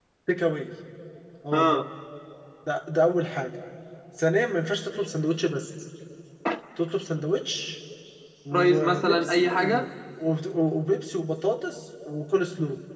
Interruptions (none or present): present